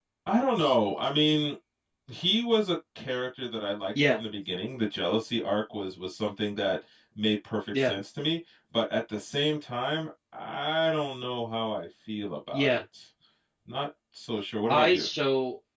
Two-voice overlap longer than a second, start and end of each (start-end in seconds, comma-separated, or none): none